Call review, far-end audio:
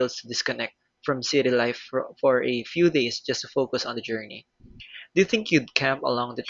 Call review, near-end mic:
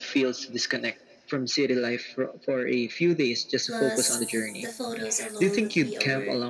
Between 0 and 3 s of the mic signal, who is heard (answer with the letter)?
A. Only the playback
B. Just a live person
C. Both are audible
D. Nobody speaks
A